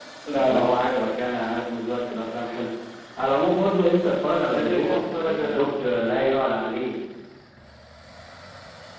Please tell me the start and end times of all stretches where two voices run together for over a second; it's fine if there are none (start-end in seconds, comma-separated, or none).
4.5-6.0